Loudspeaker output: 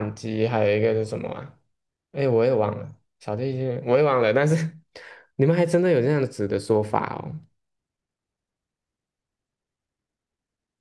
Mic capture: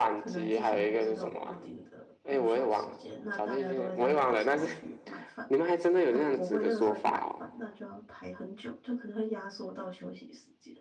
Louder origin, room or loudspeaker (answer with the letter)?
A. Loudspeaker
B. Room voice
A